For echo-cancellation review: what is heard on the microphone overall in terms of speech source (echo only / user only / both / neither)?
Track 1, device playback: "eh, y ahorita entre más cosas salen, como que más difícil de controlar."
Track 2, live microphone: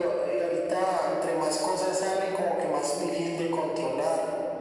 echo only